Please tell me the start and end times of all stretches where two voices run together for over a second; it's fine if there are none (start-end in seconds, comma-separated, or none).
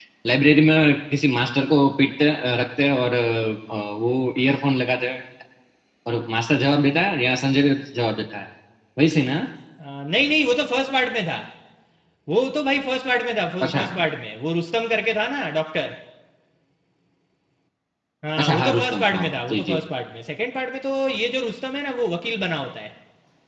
18.4-19.8